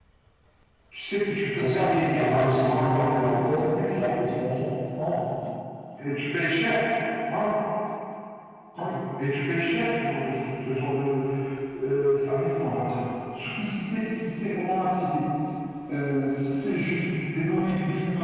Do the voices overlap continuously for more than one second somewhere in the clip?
Yes, from 1.6 s

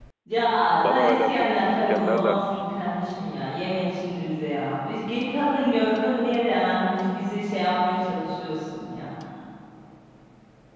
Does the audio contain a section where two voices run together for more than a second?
Yes, from 0.9 s

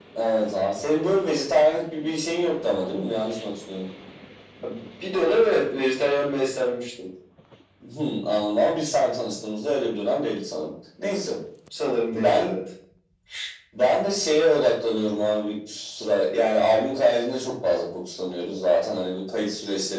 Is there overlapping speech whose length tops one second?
No

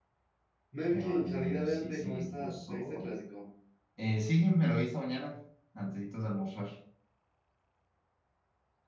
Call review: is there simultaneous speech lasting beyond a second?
Yes, from 0.9 s

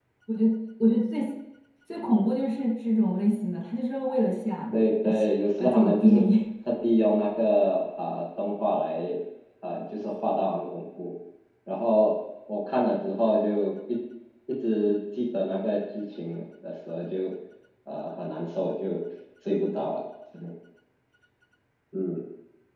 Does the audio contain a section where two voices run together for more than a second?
Yes, from 4.7 s

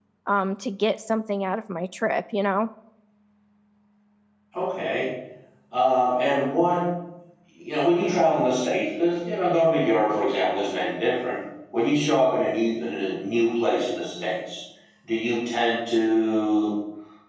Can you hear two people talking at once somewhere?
No

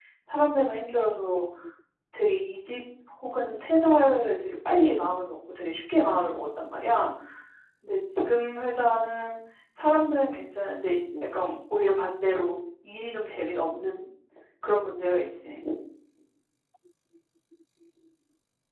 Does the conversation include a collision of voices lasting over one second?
No

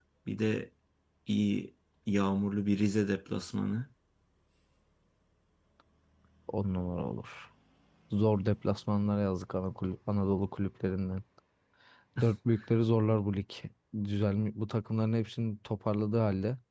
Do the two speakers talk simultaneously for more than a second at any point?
No

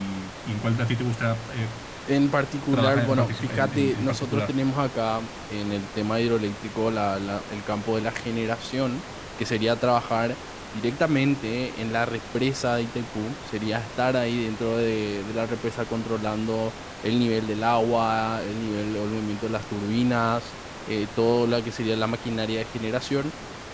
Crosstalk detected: Yes, from 2.7 s

